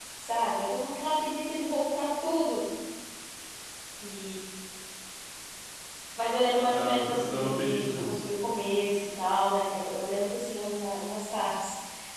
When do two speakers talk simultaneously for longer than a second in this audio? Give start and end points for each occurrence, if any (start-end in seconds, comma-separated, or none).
6.7-8.2